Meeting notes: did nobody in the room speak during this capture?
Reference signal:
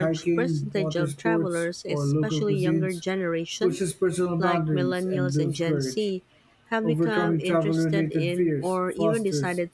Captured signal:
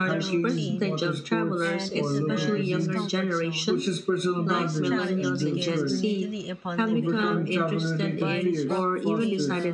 No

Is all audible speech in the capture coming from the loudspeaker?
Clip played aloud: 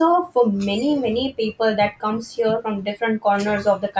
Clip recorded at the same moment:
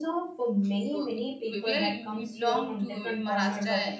No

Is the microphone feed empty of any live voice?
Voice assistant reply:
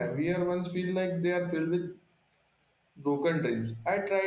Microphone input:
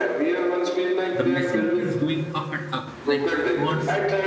No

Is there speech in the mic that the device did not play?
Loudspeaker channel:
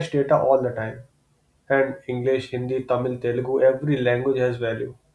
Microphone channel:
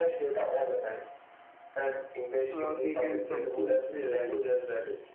Yes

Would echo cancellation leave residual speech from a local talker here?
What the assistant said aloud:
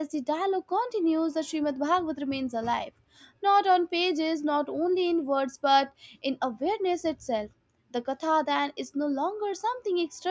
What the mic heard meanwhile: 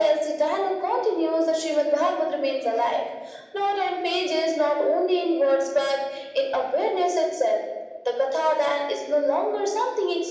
No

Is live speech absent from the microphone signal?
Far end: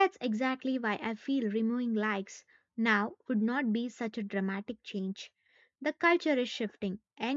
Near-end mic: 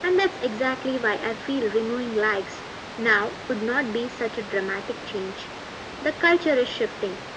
Yes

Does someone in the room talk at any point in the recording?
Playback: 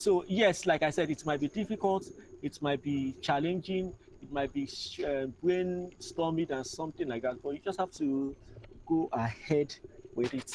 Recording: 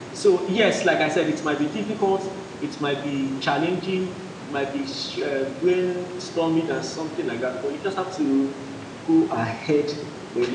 No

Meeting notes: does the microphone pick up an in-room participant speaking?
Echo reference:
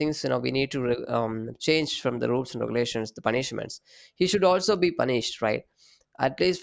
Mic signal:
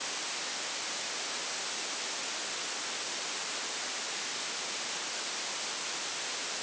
No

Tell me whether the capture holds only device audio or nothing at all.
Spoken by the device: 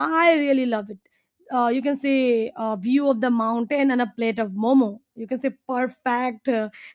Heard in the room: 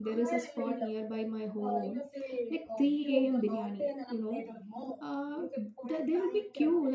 No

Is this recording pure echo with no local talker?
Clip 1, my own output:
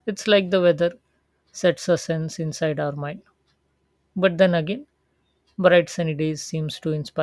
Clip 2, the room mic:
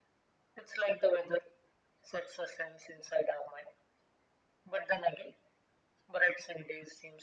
Yes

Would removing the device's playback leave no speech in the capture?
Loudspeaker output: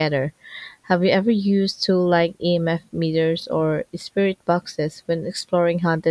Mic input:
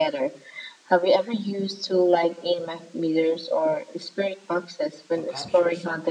No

